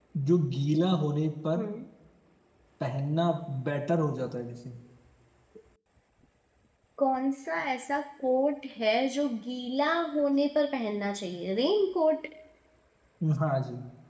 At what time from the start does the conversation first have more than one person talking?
none

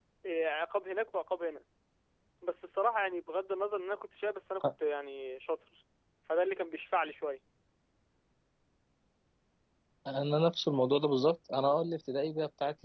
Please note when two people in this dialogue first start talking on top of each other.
none

